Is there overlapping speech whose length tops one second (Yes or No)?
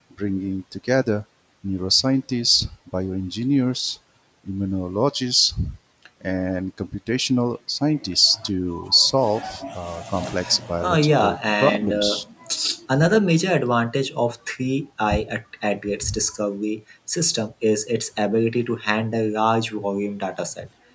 Yes